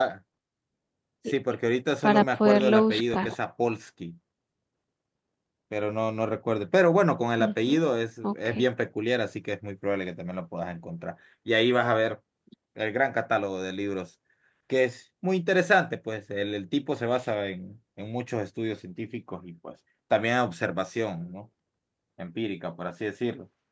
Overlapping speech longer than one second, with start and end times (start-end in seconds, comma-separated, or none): 2.0-3.3